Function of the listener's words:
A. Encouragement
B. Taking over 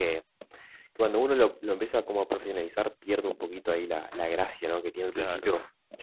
A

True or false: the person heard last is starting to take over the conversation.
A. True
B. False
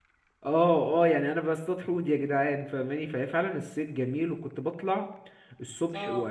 B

